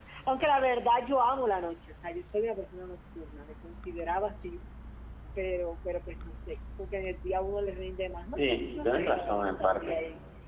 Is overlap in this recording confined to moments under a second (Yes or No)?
No